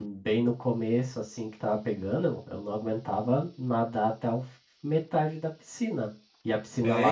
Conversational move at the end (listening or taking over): listening